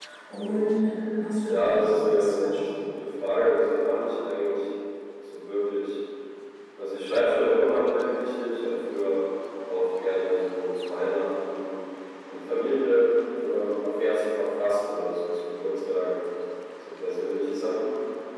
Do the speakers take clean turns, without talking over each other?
No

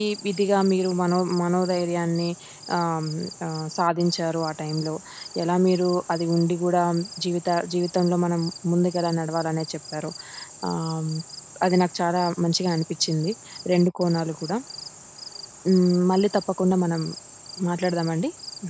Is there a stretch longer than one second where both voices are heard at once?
No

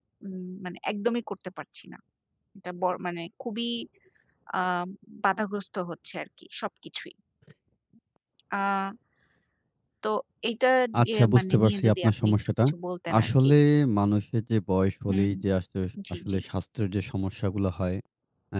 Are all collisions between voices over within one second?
No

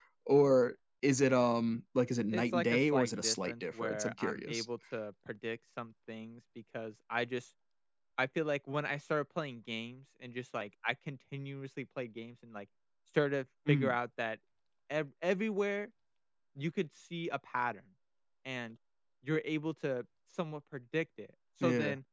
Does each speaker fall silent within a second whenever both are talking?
No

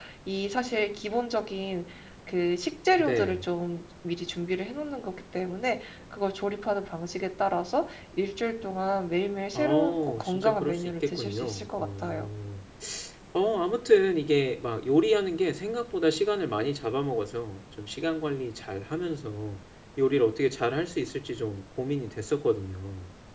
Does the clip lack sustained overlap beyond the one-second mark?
No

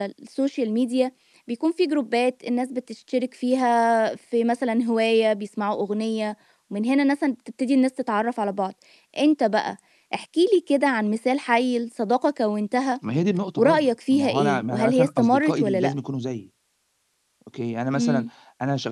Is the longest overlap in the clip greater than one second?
Yes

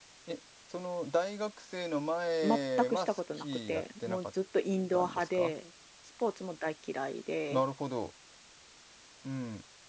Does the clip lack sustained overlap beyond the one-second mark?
No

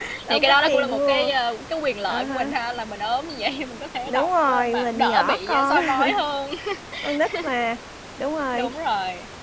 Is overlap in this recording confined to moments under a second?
No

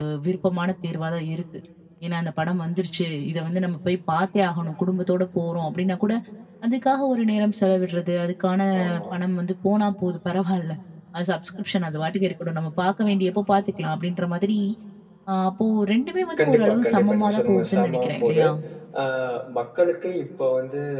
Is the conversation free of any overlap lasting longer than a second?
No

